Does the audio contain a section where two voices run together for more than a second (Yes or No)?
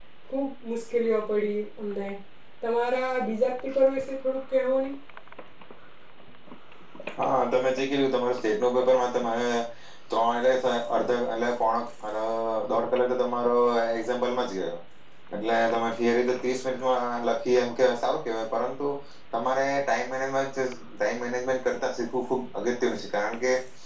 No